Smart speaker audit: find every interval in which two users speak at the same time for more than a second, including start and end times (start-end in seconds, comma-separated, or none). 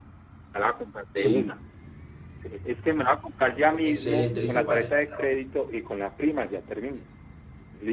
3.8-5.2